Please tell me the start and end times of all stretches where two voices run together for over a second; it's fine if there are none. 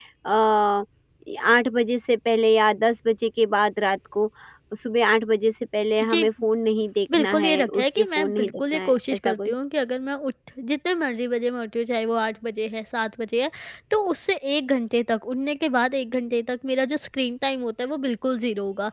7.1-9.6

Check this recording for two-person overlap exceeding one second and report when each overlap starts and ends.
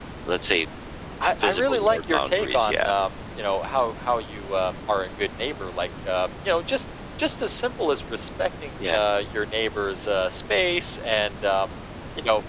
1.4-2.8

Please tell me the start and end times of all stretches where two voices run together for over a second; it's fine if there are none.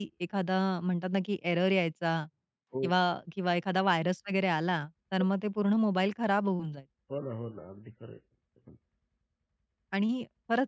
none

